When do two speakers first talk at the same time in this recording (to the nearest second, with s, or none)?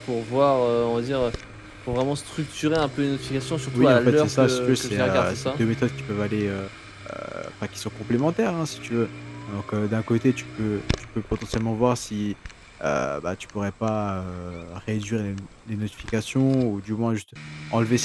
4 s